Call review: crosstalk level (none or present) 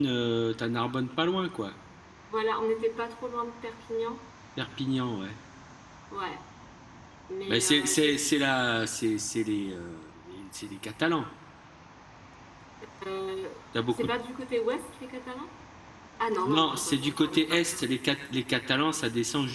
present